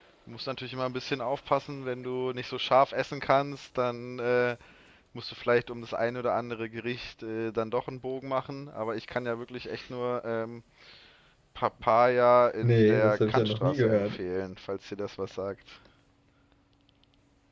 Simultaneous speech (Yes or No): Yes